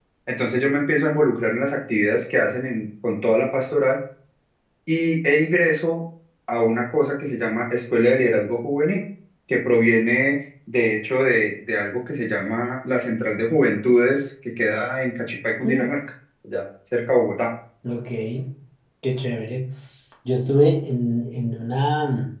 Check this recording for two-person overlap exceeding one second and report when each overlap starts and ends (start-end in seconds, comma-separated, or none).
none